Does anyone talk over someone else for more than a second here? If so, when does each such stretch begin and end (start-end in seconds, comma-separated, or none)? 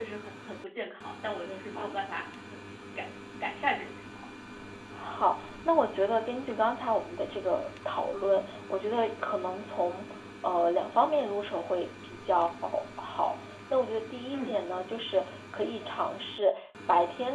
none